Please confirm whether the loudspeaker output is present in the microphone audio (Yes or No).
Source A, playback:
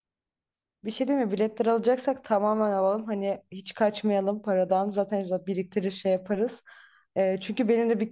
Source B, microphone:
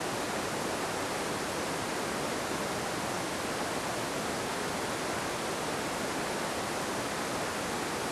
No